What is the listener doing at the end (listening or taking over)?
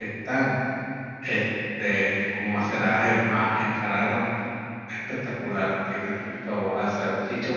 listening